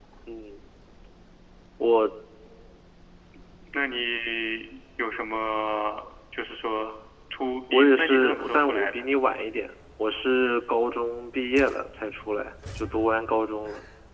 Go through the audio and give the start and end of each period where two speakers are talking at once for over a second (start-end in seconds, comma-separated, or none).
7.7-9.0